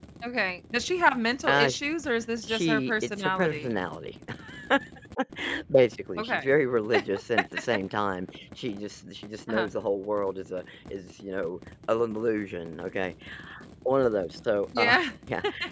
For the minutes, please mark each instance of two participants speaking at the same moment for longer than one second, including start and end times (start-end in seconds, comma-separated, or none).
2.5-3.7